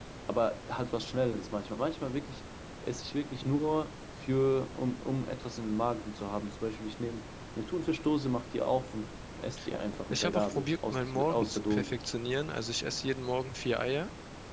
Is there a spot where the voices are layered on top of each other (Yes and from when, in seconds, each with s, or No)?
Yes, from 10.1 s